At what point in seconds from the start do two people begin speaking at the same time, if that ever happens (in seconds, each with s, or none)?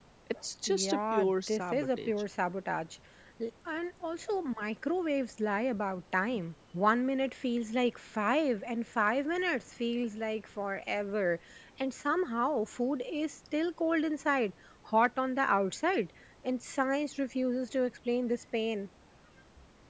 0.7 s